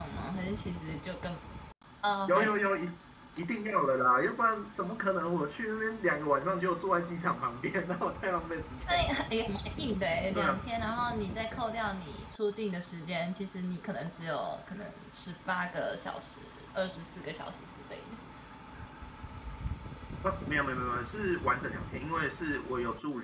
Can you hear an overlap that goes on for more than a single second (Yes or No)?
No